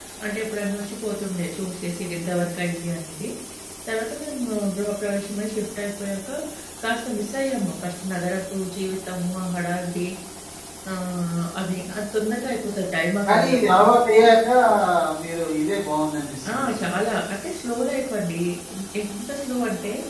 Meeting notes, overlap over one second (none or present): none